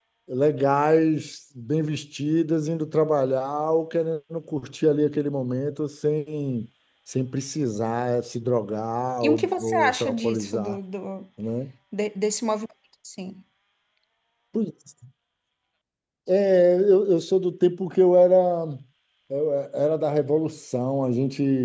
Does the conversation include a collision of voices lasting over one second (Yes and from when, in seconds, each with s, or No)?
Yes, from 9.2 s